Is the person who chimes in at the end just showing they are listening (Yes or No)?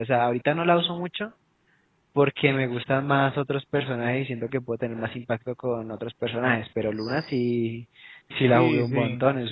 No